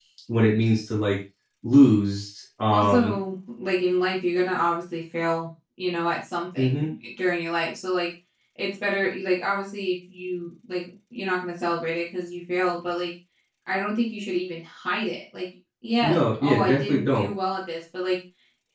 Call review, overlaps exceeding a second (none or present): present